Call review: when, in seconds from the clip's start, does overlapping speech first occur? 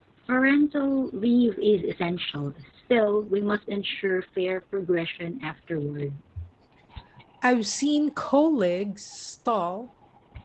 none

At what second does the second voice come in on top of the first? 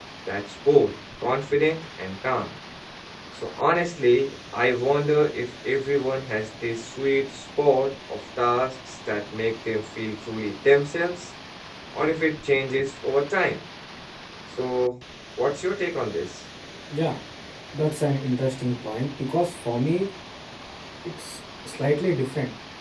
none

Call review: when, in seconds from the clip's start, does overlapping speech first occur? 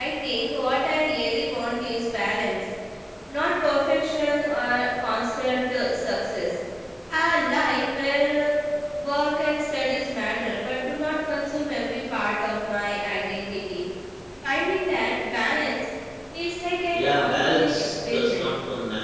16.9 s

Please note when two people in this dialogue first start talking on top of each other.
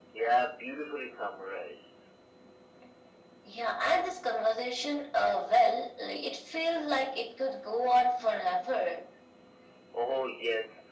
none

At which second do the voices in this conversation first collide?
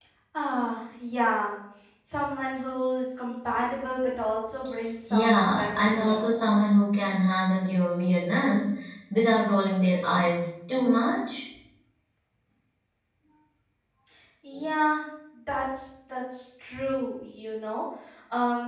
5.1 s

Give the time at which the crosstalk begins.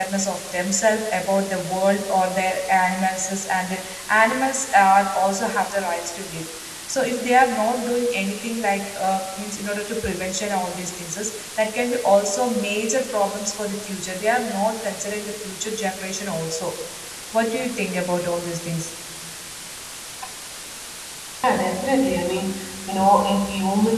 none

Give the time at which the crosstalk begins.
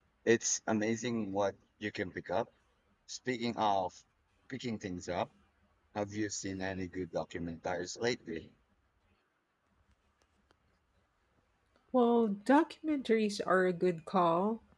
none

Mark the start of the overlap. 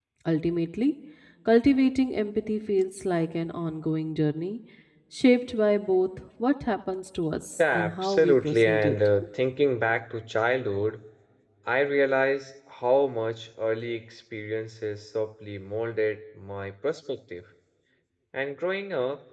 7.6 s

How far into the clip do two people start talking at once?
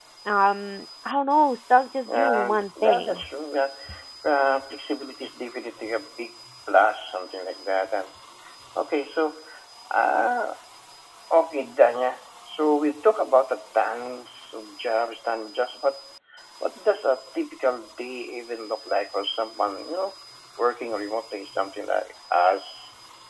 2.1 s

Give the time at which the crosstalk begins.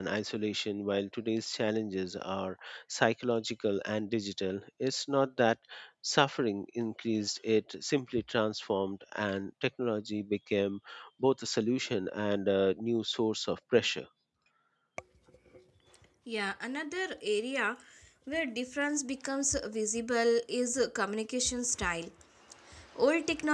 none

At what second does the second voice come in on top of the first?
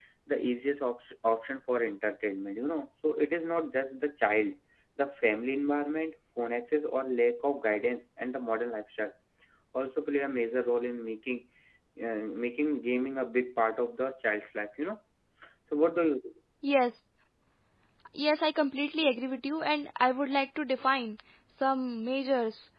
none

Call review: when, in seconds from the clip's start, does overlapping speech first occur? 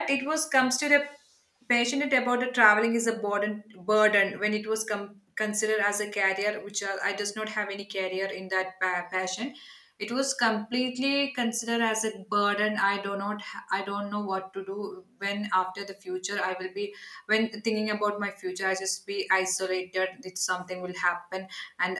none

